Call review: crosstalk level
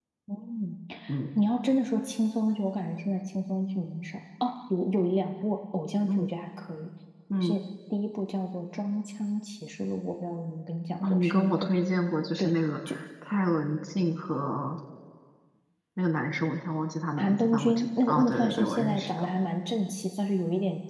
present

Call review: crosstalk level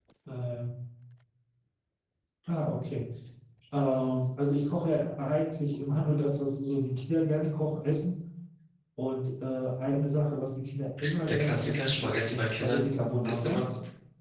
present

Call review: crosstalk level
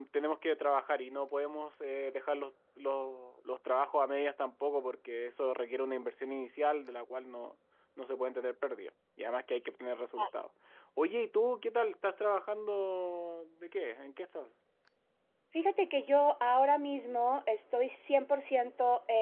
none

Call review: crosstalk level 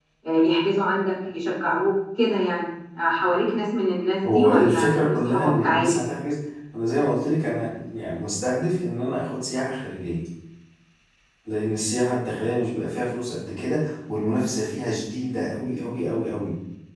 present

